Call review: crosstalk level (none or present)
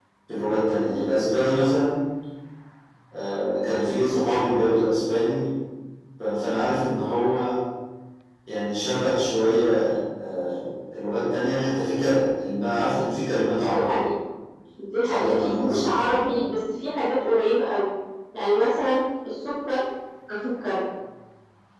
present